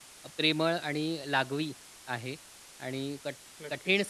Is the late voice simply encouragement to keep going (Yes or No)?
Yes